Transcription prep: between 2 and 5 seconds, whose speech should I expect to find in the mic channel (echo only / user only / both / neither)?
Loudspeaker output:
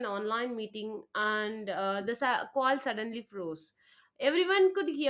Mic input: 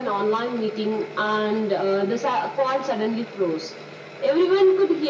echo only